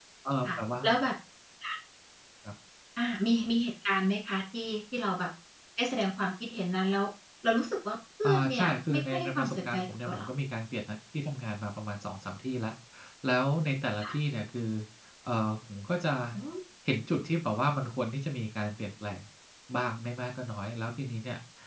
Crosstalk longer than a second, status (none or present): present